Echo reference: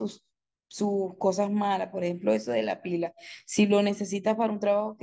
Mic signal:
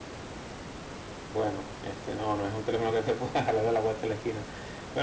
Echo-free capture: Yes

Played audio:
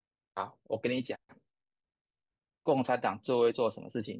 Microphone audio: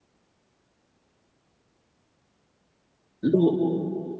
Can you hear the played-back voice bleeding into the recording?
No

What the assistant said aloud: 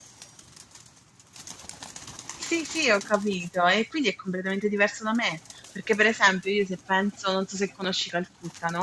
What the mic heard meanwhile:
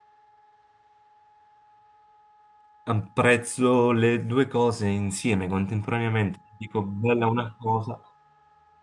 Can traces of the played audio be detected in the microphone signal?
No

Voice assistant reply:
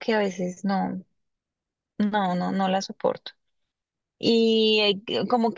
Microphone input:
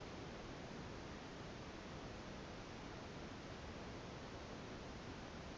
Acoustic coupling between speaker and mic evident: No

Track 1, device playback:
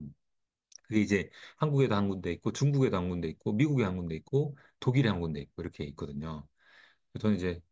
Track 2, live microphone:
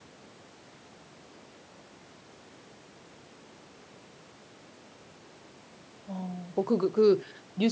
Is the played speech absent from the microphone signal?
Yes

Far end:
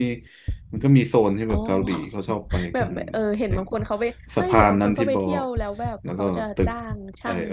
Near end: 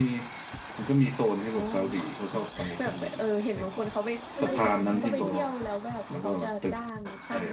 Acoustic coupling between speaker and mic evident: Yes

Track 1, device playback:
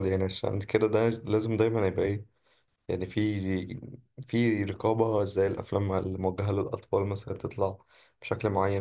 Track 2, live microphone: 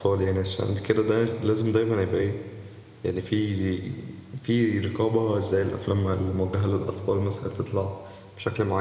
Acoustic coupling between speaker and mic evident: Yes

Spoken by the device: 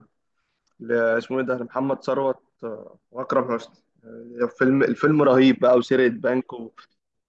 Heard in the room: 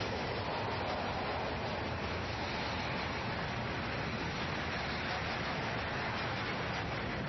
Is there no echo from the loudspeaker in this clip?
Yes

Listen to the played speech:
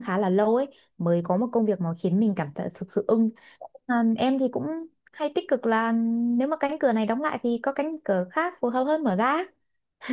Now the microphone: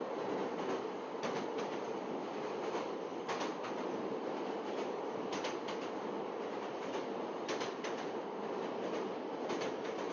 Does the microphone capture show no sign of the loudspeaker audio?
Yes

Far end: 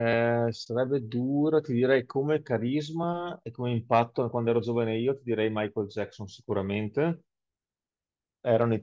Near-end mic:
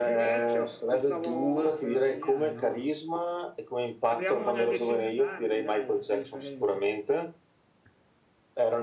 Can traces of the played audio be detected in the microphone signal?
Yes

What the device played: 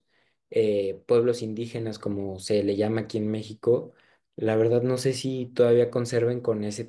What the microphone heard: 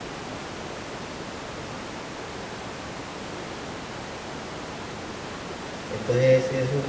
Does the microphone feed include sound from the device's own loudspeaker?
No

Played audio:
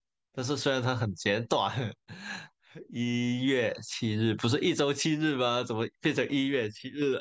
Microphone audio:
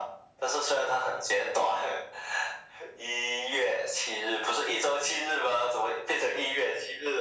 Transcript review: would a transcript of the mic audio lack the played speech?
No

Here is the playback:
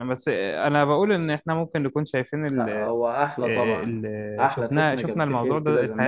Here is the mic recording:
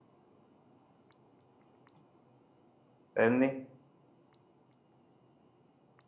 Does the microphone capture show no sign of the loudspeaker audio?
Yes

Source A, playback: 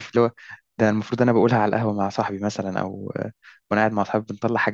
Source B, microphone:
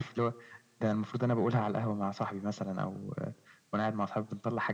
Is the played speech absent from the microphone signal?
No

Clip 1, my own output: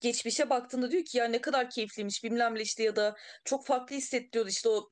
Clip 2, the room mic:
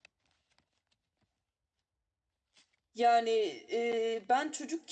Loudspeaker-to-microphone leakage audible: No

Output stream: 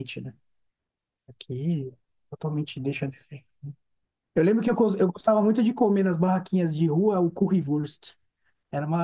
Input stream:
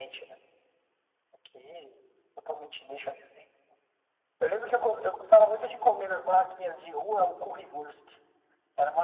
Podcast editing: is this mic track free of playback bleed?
No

